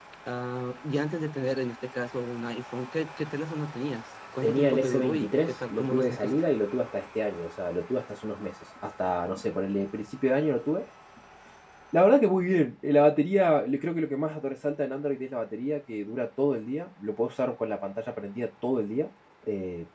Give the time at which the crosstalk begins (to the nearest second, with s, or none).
4 s